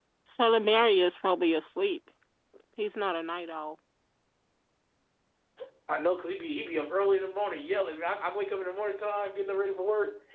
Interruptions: none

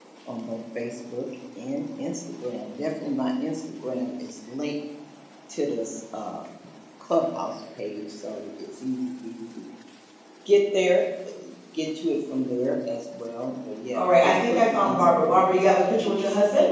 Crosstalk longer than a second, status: present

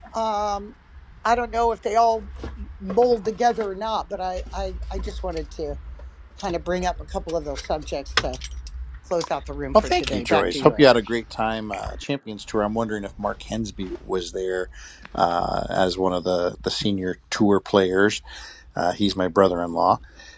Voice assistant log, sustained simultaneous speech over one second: present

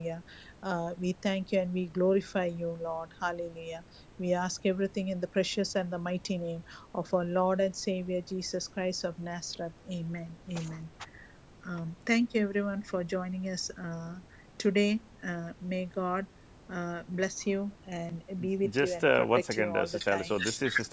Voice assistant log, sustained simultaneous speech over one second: present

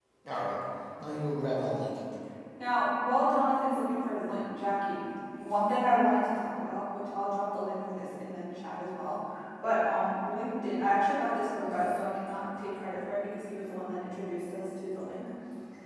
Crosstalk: none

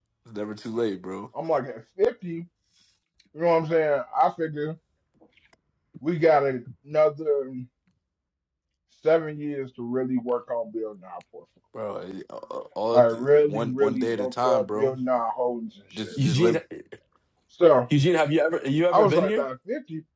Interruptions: present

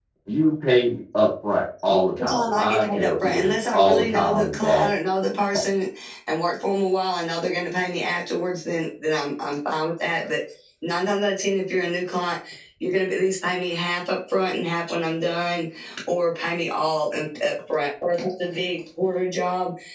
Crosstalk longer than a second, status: present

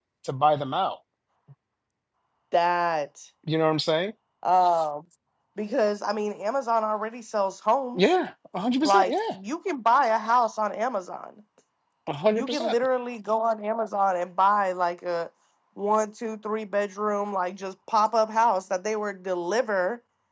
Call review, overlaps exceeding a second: none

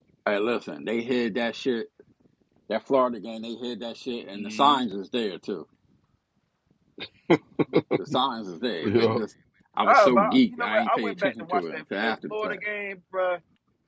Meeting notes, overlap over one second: present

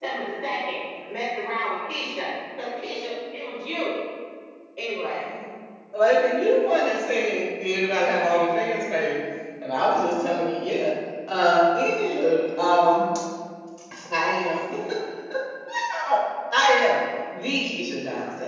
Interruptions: none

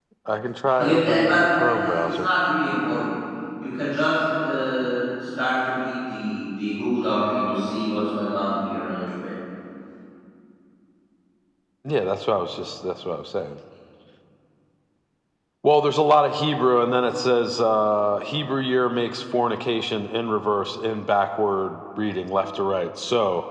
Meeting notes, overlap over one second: present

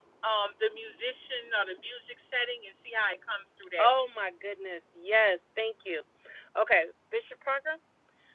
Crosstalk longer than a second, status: none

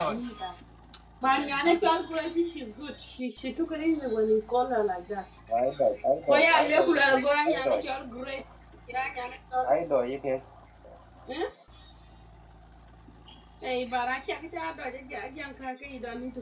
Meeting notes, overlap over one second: present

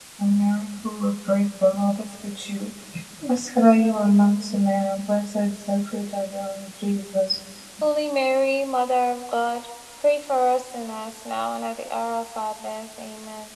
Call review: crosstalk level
none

